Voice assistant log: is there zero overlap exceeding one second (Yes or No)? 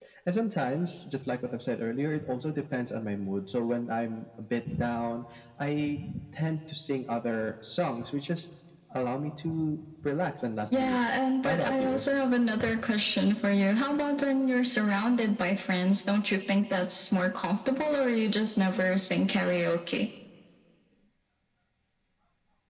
No